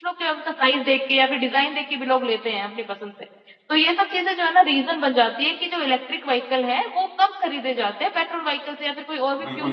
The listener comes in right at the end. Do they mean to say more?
Yes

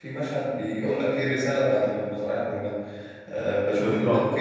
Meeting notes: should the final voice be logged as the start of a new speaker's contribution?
Yes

